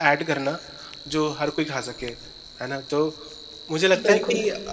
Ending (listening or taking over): listening